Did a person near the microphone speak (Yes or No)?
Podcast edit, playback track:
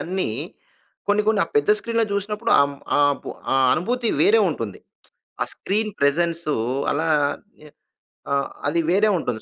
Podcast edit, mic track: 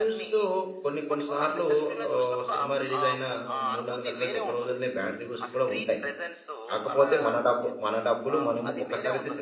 Yes